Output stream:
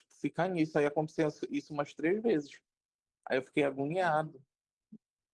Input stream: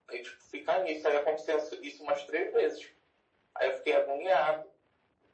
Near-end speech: none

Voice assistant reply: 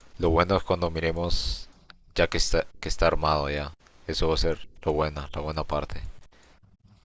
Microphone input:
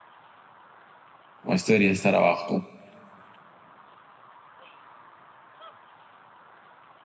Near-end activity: present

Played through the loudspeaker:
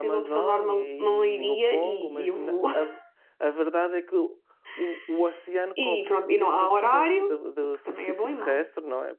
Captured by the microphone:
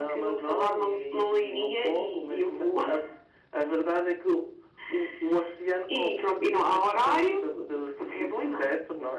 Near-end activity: none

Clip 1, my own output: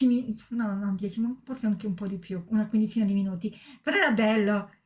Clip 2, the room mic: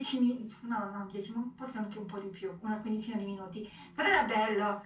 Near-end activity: none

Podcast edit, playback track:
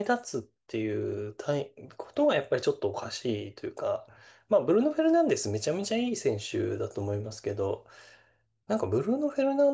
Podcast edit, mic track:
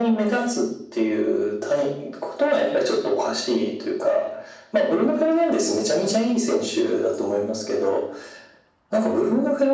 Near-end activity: none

